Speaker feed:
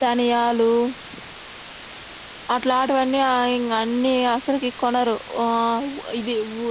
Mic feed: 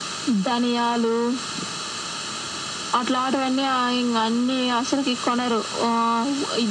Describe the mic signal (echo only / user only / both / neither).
echo only